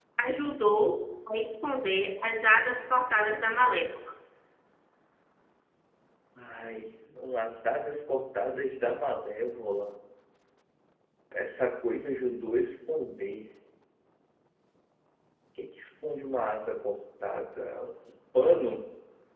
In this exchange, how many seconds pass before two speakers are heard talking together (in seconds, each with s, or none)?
none